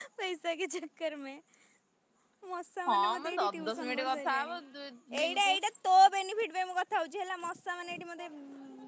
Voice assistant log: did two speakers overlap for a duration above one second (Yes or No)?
Yes